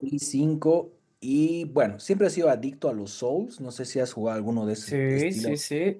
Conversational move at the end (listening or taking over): taking over